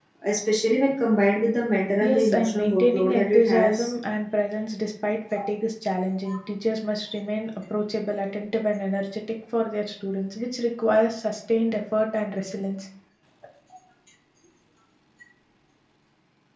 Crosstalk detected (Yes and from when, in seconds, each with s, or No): Yes, from 1.9 s